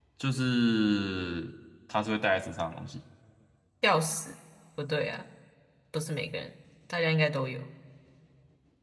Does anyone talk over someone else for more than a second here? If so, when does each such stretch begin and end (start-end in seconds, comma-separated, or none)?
none